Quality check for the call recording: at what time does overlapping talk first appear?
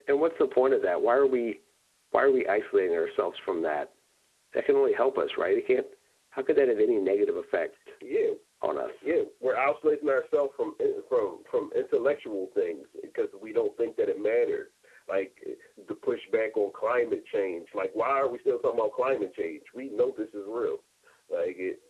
none

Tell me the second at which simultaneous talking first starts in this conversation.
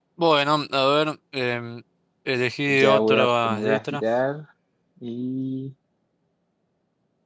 2.7 s

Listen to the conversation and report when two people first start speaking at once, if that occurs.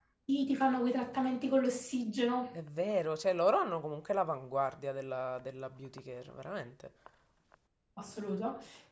none

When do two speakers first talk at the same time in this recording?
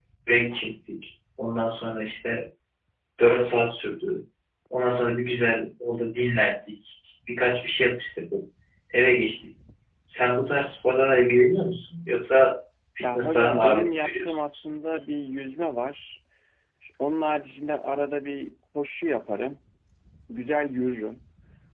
13.0 s

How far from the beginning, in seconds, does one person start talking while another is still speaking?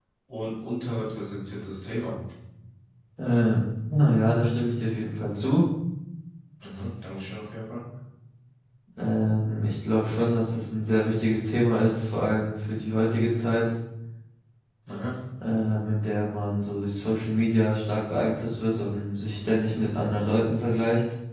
none

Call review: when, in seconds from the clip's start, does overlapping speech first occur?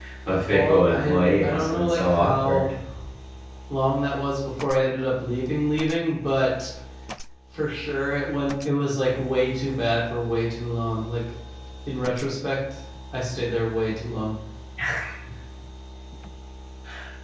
0.5 s

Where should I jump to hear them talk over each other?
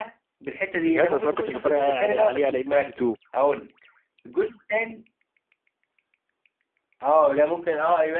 0.8 s

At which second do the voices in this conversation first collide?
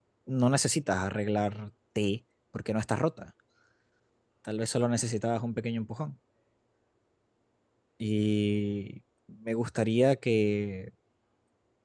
none

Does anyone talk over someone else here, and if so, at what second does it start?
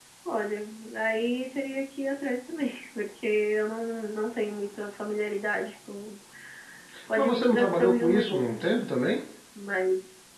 7.2 s

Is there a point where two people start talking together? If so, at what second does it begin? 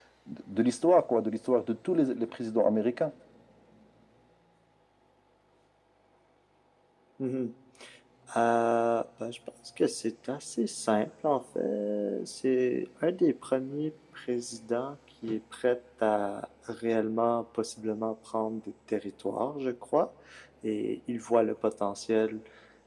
none

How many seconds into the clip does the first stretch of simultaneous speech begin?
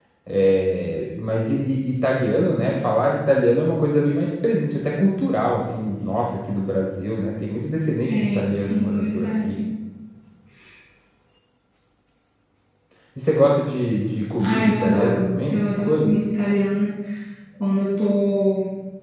8.0 s

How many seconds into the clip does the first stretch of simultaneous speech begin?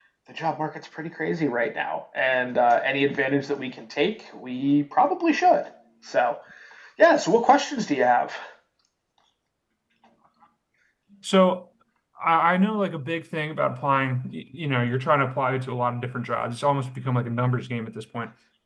none

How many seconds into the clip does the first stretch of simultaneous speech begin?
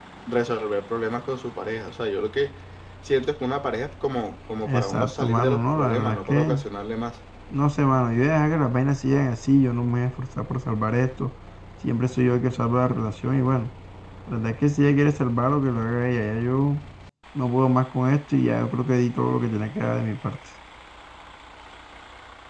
4.6 s

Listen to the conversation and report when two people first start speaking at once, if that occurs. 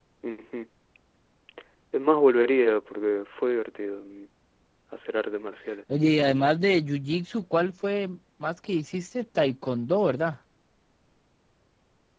none

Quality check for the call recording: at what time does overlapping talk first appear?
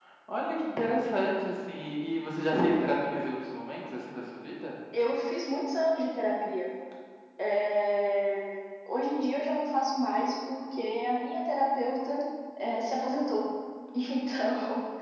none

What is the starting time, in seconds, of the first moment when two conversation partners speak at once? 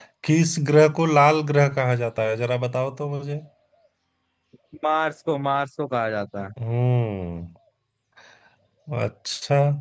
none

